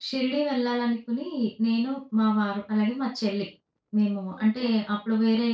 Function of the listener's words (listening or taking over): listening